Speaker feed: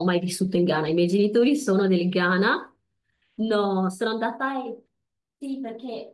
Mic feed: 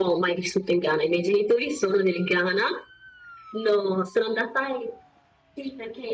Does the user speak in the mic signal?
No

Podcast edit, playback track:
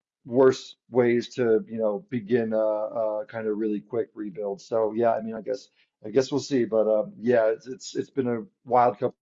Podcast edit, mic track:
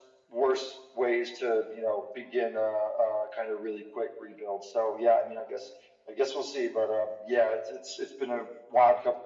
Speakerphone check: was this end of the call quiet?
Yes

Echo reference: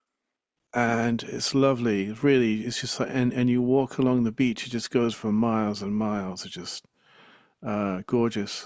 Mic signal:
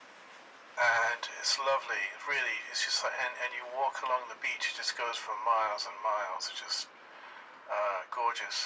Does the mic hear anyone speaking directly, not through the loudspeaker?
No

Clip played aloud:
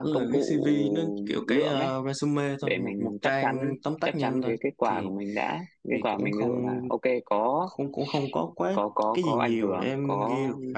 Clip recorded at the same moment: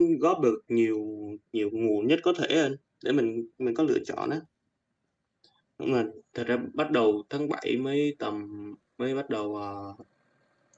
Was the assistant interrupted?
Yes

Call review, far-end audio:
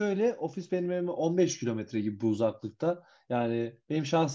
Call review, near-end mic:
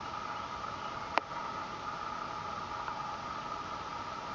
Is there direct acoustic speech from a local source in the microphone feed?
No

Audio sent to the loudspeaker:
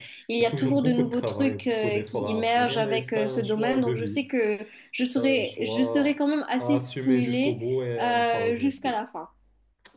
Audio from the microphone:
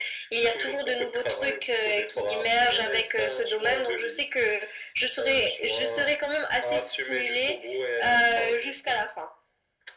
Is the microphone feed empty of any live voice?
Yes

